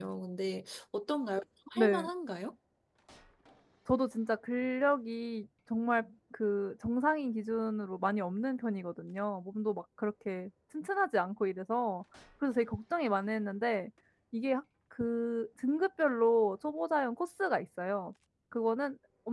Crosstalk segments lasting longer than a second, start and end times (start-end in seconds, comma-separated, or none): none